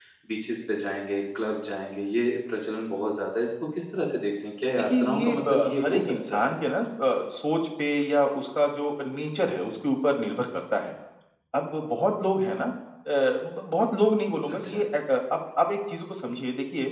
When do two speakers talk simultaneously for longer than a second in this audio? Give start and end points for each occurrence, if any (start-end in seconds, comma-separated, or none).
5.0-6.5